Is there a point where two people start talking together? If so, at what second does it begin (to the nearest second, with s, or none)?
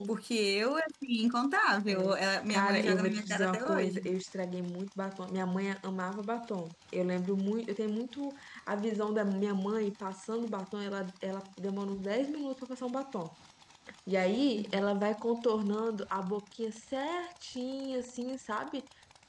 2 s